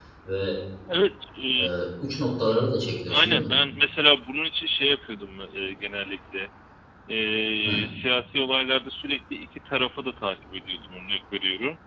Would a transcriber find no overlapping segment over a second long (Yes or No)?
Yes